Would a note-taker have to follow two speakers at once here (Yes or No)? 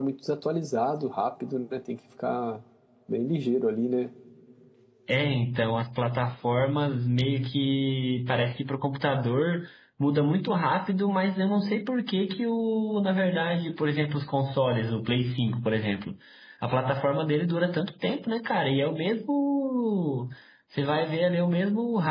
No